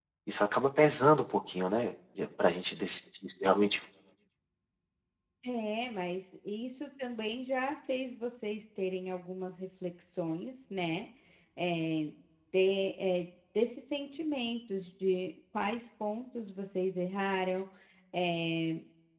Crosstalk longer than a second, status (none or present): none